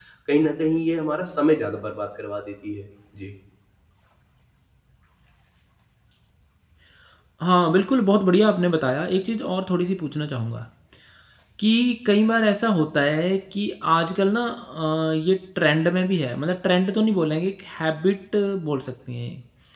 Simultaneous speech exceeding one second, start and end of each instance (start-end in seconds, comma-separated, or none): none